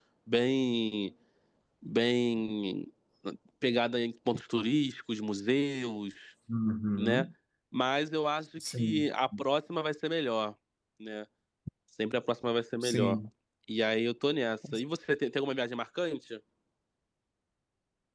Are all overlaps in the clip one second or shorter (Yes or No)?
Yes